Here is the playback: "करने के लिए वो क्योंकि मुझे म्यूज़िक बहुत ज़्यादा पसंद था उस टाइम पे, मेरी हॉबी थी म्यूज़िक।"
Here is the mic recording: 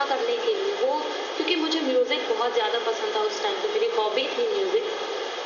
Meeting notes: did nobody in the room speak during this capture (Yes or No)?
Yes